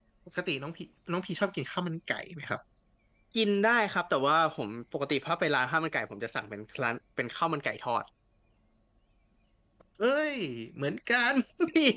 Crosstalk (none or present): none